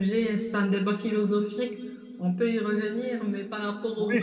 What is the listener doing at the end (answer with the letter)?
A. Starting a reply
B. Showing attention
A